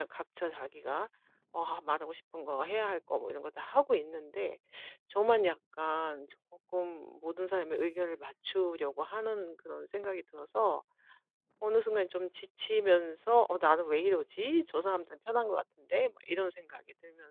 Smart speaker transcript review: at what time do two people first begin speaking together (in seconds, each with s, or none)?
none